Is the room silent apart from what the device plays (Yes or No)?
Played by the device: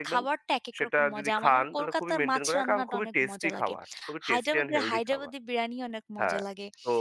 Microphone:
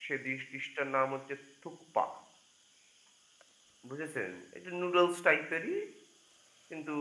No